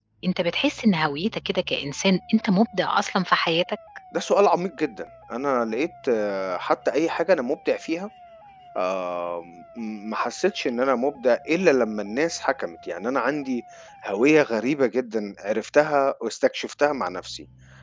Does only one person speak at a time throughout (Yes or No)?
Yes